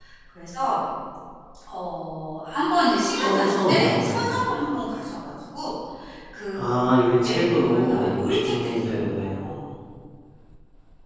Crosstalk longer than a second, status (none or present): present